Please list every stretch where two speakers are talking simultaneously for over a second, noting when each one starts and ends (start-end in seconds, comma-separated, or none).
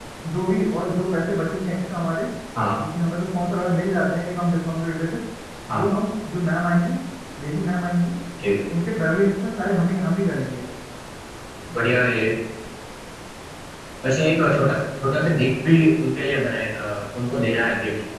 none